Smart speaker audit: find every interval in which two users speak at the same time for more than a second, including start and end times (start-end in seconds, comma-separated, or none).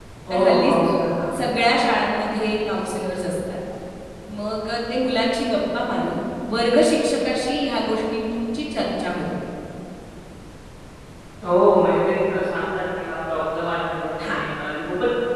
none